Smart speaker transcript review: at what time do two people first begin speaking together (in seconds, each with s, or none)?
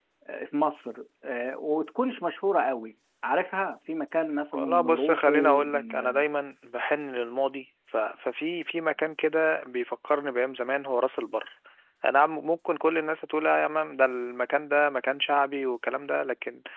4.5 s